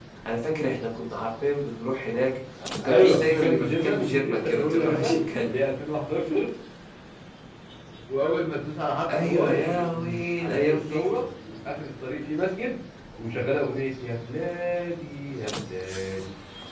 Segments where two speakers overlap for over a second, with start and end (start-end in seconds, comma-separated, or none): 2.8-5.5, 9.1-11.1